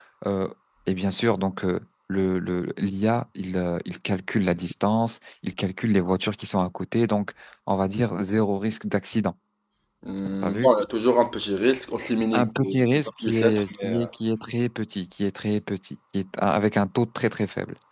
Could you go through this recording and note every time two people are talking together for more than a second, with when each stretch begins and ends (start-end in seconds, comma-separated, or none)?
12.3-14.1